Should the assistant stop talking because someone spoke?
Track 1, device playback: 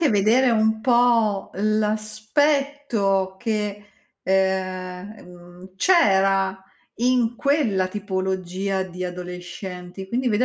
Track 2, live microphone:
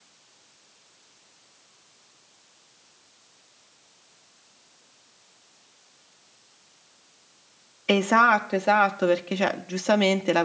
Yes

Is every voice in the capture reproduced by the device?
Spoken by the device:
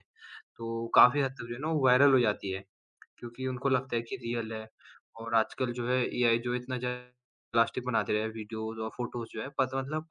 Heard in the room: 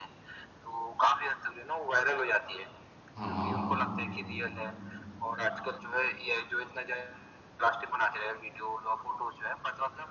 No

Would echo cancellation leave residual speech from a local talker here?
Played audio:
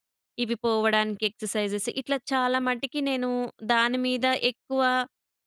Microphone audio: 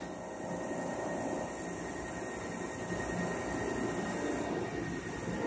No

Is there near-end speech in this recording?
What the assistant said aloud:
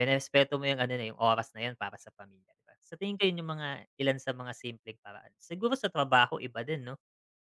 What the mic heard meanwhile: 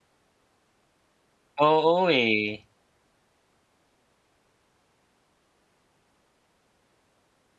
Yes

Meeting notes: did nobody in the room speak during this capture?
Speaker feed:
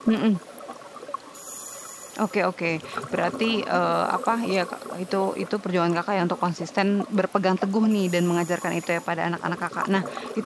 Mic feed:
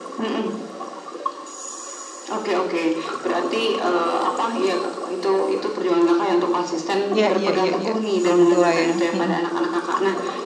No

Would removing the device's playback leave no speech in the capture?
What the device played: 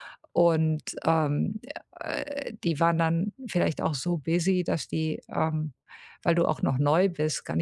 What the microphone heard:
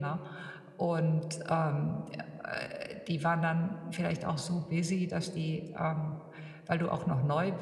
Yes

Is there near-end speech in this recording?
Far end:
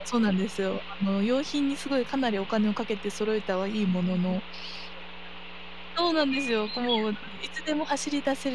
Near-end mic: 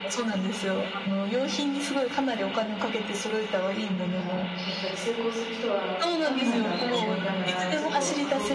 Yes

